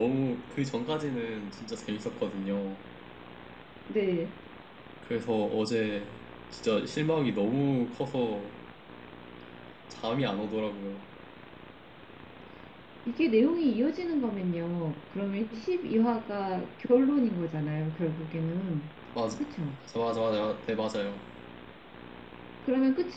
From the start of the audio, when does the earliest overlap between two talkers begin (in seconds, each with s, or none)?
none